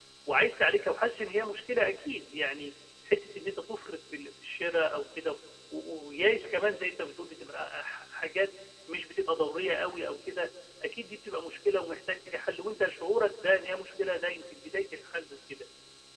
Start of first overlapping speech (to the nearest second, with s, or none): none